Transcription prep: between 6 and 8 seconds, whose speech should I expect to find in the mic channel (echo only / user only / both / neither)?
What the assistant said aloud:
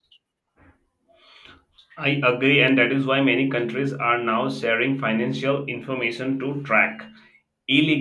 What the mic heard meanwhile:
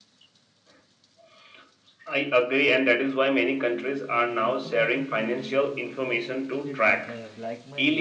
both